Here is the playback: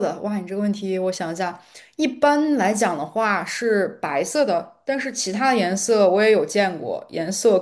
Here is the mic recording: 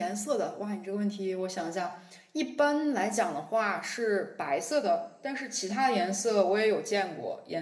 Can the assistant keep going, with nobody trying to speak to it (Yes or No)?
Yes